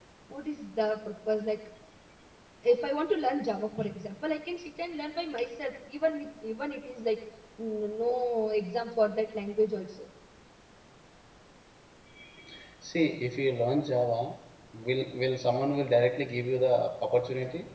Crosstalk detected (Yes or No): No